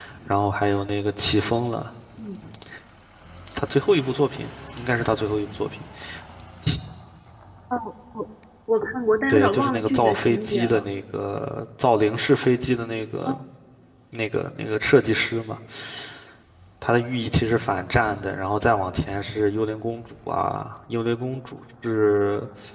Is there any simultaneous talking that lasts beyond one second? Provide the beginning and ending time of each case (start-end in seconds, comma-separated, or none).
9.3-10.8